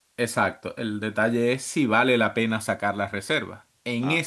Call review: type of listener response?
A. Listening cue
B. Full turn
A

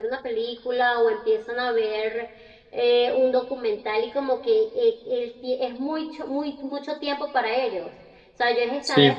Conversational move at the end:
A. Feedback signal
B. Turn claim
A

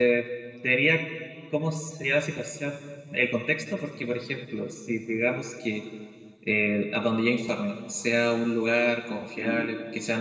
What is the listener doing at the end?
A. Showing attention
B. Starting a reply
A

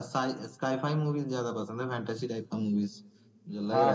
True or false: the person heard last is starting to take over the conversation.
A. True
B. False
A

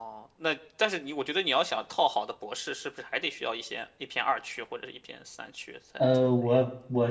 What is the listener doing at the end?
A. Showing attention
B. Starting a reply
B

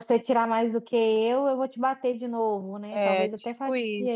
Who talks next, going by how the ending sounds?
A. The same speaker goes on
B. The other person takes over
B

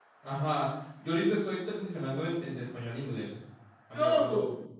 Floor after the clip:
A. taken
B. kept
B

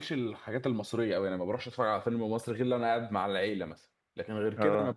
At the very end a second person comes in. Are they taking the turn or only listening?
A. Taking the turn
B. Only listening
B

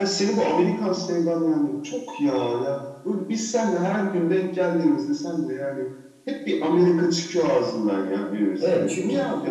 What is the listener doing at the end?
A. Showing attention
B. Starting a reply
B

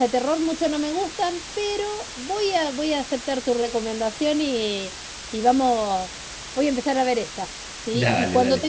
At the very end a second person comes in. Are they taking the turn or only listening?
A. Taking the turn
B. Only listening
B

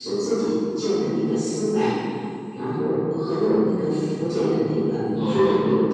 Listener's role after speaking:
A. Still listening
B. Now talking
A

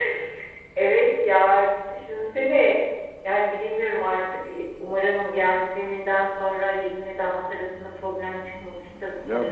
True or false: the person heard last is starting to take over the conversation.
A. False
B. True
B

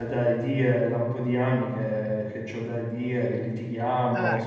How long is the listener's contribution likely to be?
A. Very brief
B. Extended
B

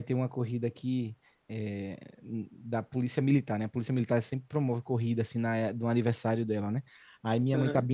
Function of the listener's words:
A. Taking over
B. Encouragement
B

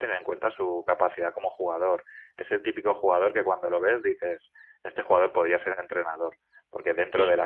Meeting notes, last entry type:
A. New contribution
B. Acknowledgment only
B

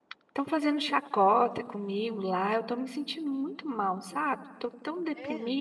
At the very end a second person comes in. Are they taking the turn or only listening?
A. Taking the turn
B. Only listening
B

